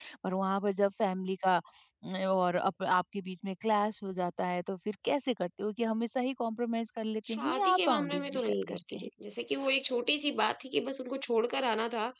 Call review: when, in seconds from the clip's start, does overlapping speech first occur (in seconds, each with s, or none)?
7.2 s